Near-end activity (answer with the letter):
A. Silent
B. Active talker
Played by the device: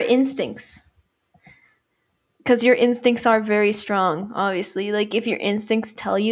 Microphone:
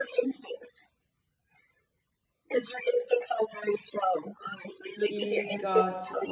B